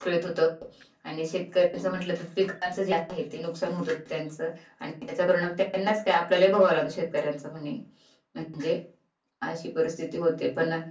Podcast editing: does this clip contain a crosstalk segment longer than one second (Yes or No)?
No